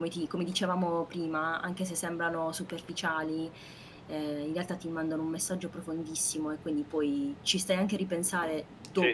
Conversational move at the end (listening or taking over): taking over